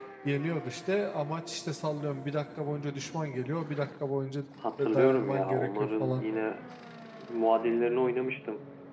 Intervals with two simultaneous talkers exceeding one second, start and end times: 4.8-6.2

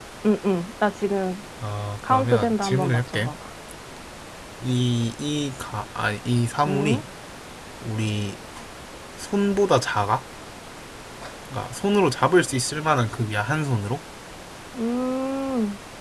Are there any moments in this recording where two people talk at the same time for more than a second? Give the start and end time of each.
2.1-3.3

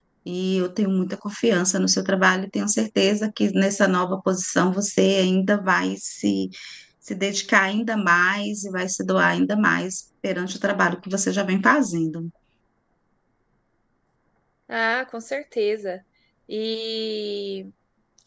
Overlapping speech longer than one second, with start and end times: none

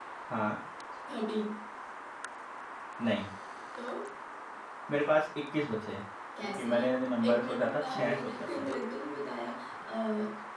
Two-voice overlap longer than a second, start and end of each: 7.3-8.7

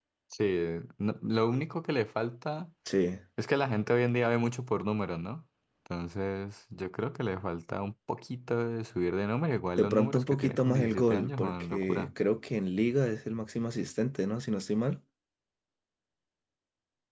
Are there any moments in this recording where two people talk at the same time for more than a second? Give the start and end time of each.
9.8-12.1

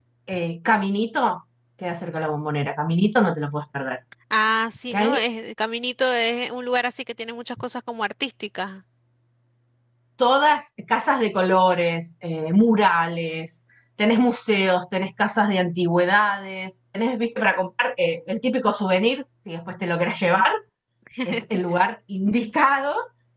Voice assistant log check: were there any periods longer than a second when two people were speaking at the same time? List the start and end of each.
none

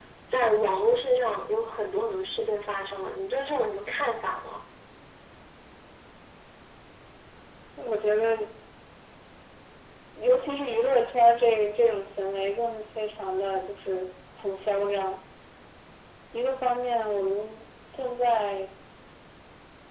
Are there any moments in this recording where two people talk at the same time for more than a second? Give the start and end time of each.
none

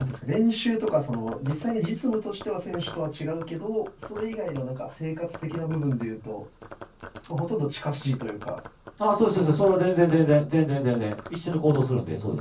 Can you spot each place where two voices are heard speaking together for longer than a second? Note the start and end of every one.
none

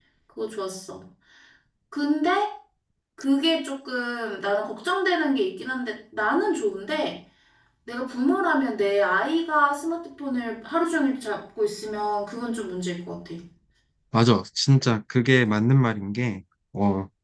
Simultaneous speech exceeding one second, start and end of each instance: none

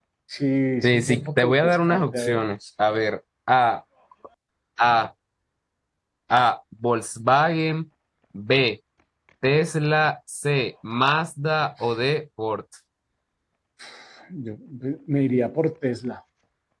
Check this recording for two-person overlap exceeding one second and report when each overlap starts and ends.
0.8-2.4

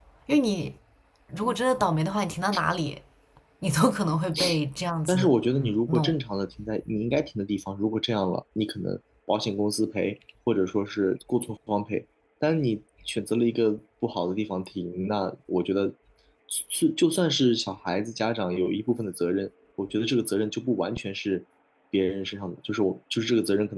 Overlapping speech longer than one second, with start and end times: none

